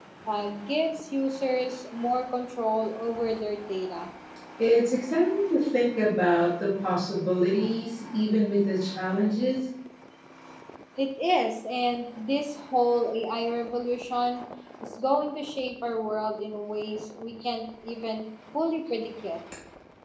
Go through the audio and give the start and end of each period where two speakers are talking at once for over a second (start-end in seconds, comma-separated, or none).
none